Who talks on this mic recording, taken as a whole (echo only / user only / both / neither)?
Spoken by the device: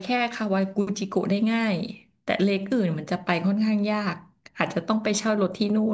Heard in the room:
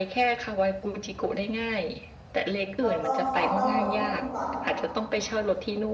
both